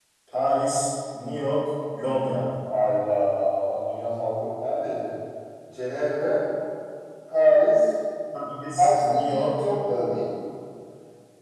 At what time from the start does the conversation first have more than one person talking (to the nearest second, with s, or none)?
9 s